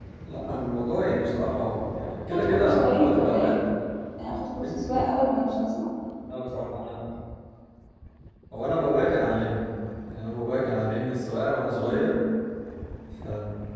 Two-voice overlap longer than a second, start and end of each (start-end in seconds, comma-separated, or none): 2.3-3.6